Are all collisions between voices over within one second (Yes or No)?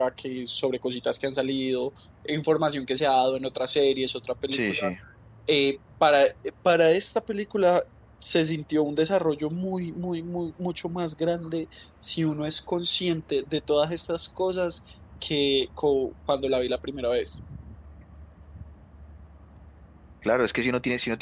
Yes